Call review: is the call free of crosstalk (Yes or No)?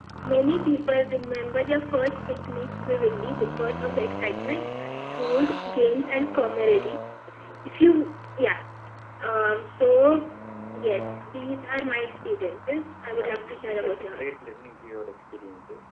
No